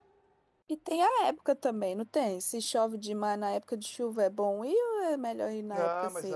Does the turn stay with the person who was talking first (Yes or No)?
No